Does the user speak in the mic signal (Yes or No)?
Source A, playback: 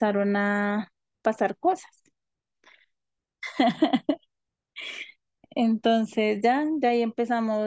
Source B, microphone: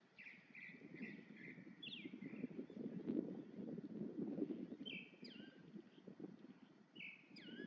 No